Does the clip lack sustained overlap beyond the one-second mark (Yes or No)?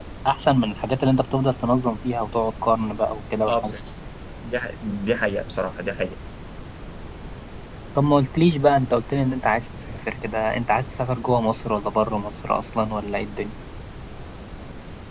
Yes